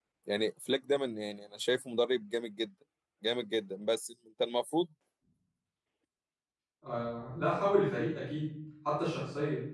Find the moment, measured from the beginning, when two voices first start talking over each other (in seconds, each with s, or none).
none